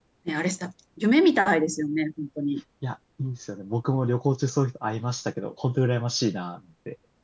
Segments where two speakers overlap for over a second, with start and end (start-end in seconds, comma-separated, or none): none